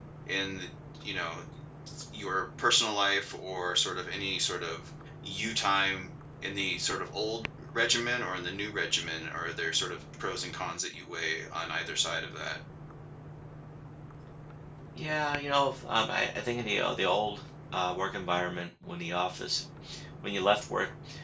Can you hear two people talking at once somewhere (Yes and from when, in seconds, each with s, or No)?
No